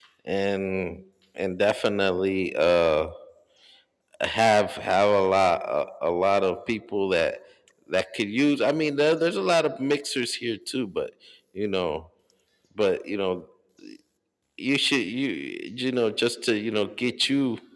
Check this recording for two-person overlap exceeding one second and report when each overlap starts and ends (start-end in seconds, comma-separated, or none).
none